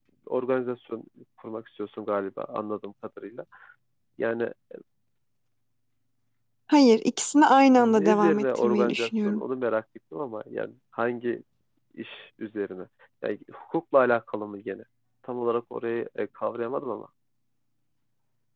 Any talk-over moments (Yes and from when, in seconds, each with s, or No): Yes, from 7.8 s